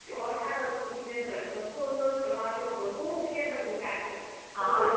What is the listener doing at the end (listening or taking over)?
listening